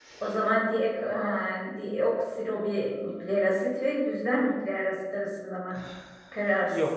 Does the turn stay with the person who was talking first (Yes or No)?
No